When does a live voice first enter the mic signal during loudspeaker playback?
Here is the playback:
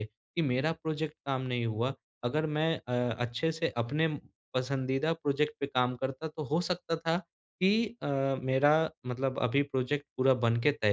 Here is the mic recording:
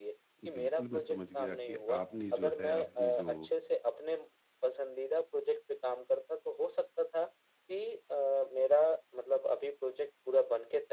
0.4 s

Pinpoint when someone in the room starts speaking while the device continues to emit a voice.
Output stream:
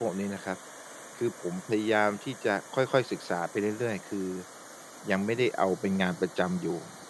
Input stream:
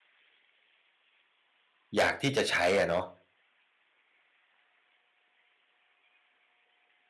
2.0 s

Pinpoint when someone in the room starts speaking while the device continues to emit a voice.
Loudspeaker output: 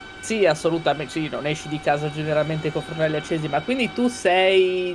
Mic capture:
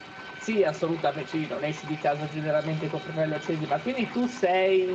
none

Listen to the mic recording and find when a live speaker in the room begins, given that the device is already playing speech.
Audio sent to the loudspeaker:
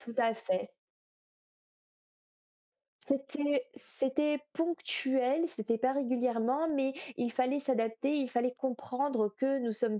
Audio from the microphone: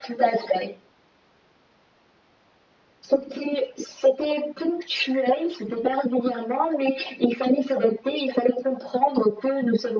none

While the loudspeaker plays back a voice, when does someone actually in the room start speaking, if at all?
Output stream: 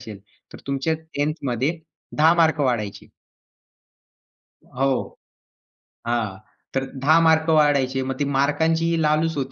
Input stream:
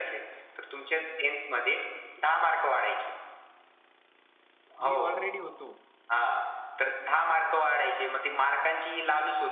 4.8 s

